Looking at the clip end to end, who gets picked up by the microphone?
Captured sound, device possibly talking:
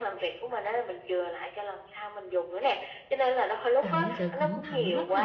both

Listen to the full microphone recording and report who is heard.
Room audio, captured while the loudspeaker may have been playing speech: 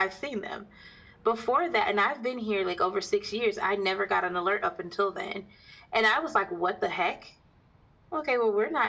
echo only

